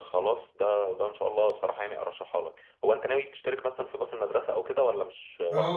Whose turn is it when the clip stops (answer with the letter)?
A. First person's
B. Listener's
B